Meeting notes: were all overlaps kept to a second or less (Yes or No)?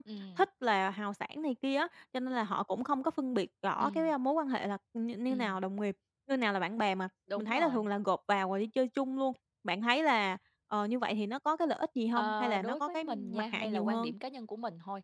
No